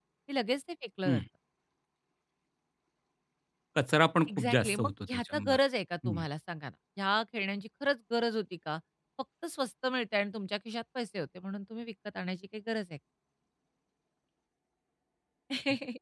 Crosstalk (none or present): present